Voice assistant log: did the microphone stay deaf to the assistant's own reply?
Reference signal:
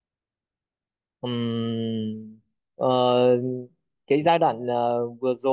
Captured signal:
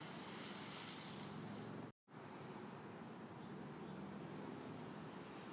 Yes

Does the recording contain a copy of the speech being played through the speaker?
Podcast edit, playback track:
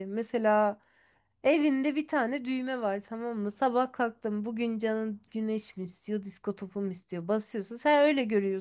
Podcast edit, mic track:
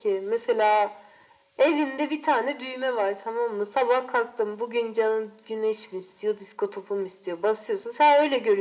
Yes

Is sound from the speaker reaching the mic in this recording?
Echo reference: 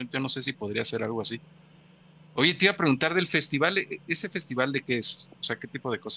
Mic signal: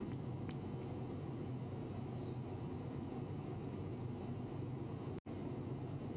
No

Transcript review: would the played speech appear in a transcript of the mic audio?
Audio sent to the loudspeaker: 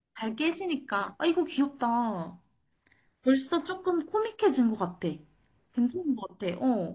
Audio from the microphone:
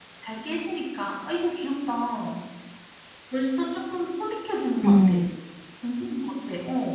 Yes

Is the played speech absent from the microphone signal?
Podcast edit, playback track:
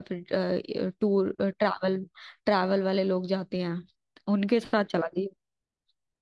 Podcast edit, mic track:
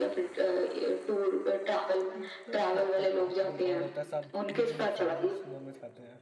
No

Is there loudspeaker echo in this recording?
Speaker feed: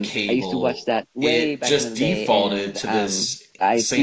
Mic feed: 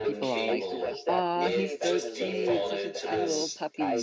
Yes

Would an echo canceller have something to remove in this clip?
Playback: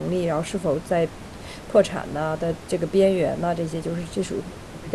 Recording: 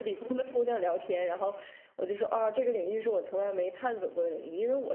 No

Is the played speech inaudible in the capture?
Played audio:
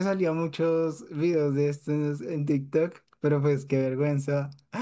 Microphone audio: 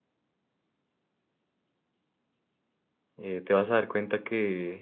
Yes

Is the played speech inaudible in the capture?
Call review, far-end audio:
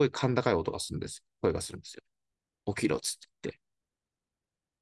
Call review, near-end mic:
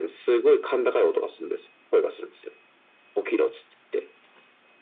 No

